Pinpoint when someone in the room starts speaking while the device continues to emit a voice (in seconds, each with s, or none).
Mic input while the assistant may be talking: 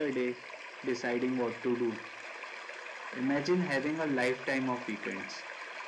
none